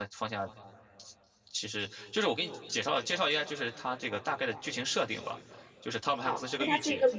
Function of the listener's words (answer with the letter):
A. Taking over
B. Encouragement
A